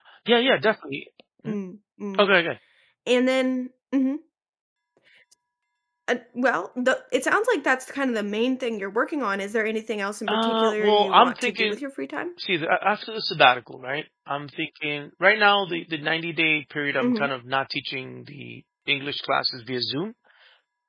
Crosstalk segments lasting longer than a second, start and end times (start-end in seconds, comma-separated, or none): 10.3-11.8